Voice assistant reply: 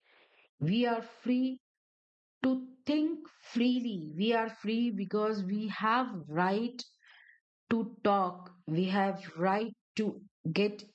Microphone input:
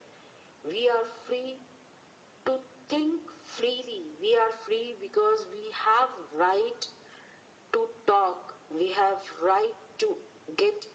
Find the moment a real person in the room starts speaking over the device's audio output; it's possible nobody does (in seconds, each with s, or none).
none